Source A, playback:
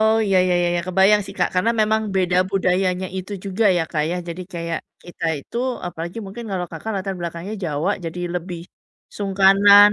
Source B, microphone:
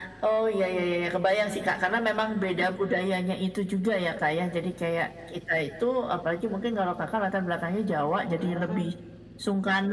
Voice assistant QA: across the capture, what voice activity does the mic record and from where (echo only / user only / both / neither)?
both